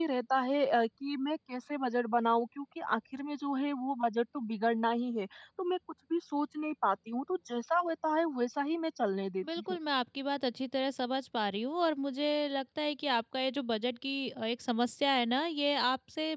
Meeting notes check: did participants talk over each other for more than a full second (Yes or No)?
No